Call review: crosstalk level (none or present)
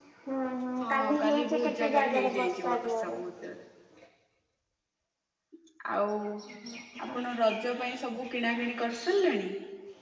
present